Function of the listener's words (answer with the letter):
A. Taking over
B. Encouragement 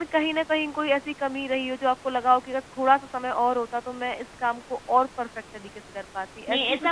A